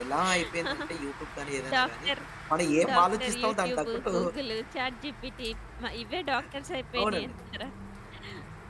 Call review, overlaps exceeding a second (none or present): present